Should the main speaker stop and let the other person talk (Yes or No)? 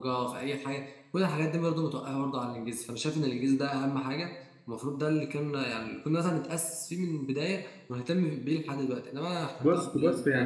Yes